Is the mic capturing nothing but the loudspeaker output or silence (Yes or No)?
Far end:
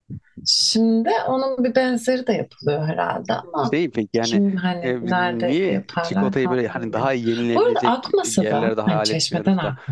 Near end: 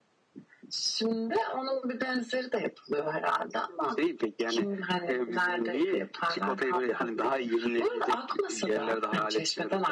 Yes